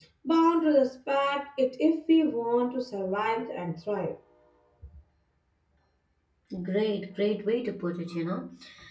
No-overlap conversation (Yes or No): Yes